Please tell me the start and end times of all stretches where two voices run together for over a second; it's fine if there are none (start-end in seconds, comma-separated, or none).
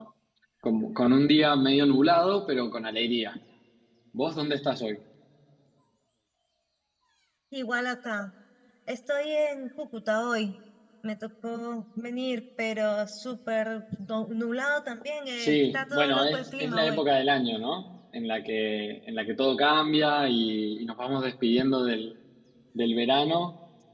15.4-17.0